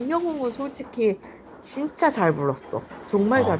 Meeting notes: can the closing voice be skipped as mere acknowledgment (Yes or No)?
No